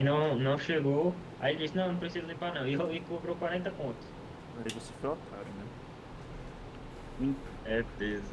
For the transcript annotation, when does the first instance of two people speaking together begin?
none

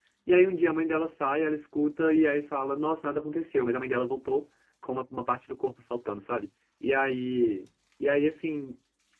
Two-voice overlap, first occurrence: none

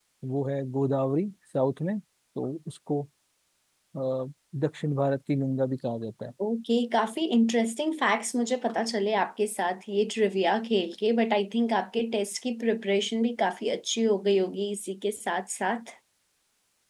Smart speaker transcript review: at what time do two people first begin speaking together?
none

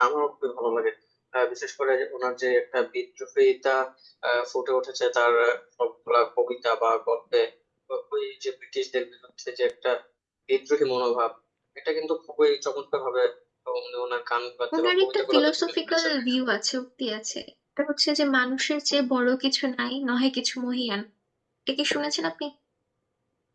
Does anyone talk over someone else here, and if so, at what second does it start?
14.7 s

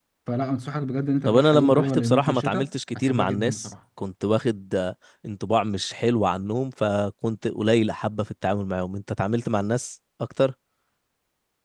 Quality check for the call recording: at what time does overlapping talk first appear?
1.2 s

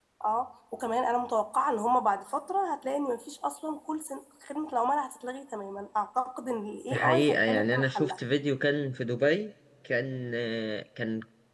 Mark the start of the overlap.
6.9 s

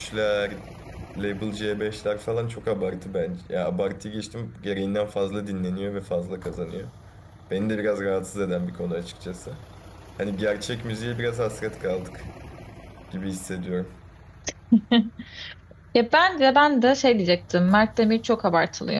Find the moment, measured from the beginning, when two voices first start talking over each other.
none

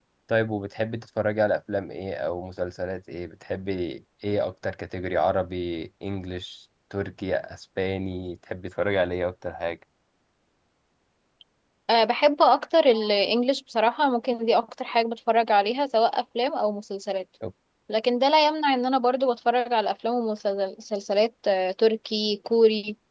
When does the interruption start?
none

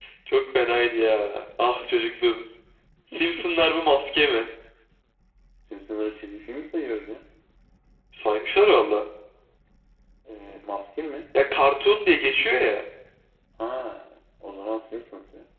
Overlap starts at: none

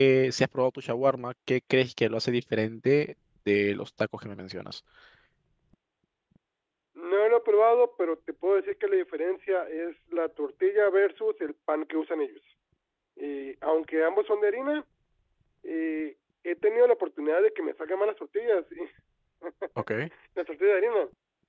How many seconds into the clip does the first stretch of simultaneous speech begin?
none

